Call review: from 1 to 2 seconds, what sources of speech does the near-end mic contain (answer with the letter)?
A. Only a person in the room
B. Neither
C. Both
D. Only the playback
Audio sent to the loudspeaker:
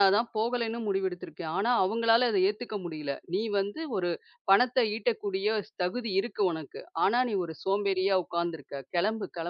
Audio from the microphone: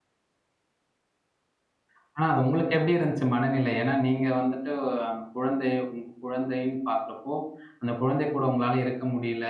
B